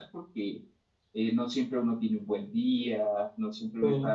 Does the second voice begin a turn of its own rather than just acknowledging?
No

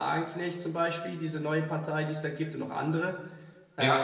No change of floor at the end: No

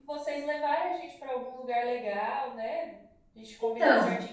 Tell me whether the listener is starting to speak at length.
No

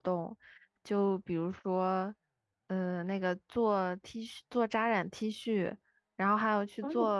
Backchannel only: Yes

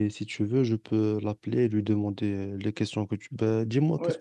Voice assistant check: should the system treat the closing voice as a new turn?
Yes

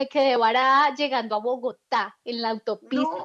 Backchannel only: Yes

